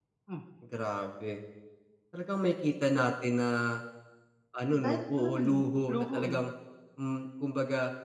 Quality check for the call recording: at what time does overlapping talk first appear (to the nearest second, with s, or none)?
5 s